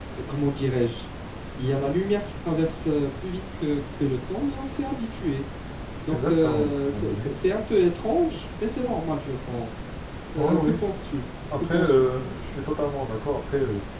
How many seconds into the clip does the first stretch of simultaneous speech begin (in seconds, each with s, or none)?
6.1 s